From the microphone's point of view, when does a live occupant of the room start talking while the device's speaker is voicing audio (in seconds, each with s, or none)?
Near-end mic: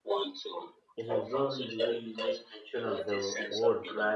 1.0 s